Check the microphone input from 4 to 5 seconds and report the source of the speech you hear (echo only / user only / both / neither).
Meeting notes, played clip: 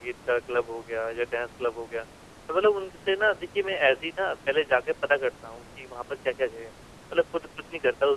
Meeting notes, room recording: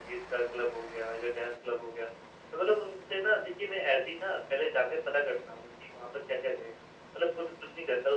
echo only